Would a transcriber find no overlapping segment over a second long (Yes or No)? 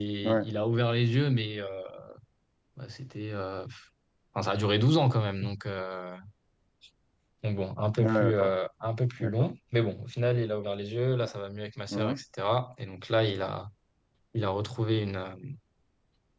Yes